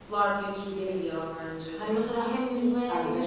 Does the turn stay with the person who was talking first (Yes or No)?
Yes